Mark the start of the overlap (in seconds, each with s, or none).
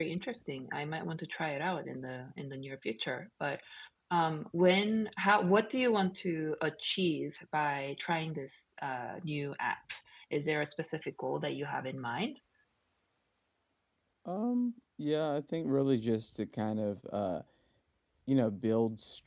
none